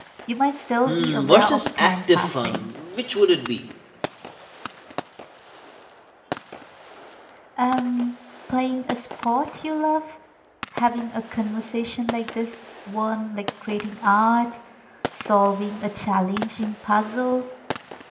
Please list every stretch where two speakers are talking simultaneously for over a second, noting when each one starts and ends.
0.9-2.7

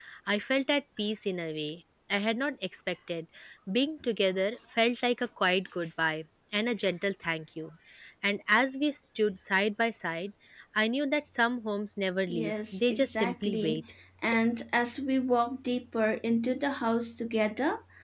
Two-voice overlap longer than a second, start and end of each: 12.3-13.8

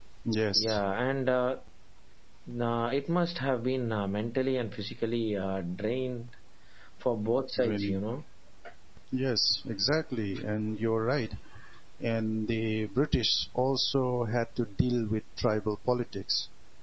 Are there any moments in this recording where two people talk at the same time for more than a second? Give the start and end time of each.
none

